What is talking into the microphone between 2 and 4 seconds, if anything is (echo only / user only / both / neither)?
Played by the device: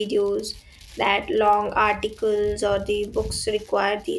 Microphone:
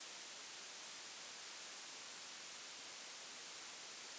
neither